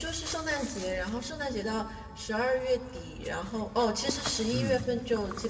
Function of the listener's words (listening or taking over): listening